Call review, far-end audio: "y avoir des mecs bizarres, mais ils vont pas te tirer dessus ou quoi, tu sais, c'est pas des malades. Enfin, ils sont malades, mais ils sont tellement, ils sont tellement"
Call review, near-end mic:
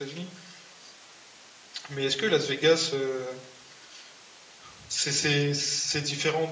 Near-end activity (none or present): present